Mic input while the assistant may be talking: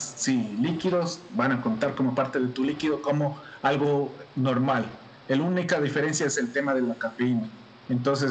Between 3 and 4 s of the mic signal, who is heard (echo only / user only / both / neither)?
echo only